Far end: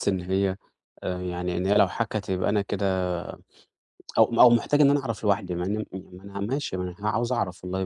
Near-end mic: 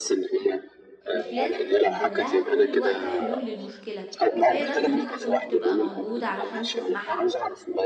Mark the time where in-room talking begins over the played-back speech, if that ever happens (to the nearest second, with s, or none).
1 s